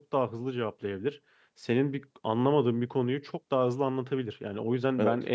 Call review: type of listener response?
listening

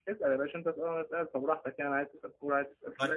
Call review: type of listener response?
taking over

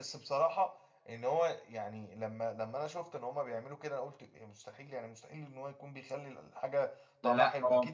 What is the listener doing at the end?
listening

